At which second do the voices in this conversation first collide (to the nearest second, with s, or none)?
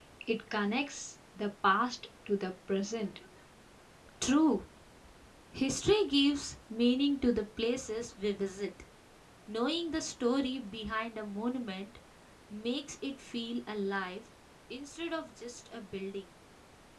none